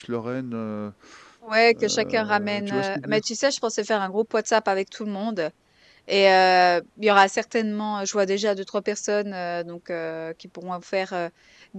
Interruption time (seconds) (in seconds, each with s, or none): 1.7 s